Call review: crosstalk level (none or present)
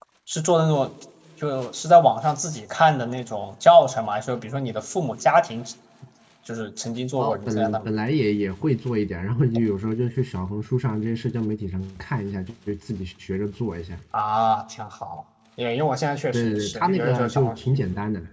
present